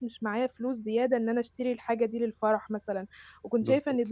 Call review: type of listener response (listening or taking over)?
listening